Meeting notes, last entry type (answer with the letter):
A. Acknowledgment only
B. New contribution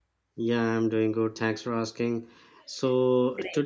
A